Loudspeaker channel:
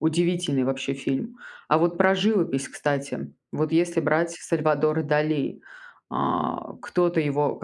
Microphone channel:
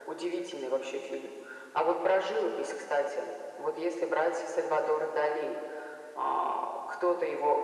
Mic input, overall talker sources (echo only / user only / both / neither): echo only